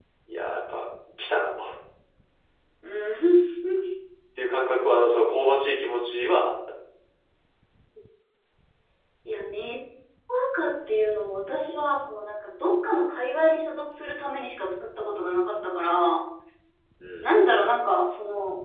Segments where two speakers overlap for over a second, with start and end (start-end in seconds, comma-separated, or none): none